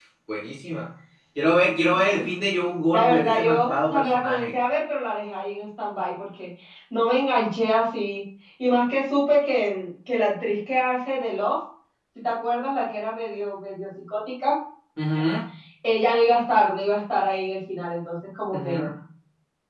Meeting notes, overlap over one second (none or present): present